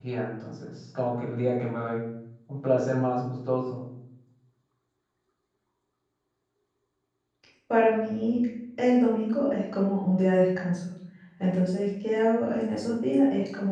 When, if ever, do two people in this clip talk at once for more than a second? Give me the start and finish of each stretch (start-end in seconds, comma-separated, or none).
none